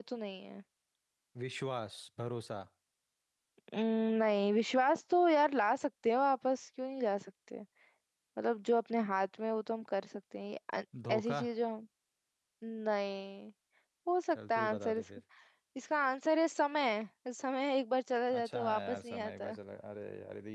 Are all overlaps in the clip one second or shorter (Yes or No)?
No